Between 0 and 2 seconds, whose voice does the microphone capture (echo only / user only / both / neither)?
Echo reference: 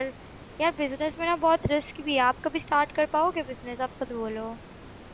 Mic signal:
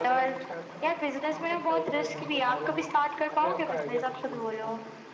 both